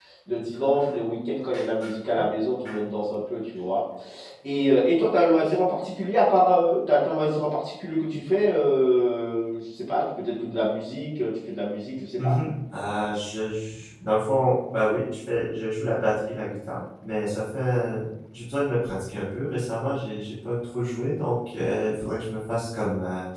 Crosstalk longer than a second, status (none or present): none